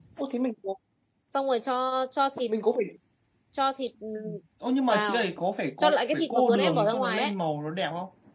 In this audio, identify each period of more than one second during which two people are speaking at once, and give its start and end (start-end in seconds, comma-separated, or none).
5.8-7.3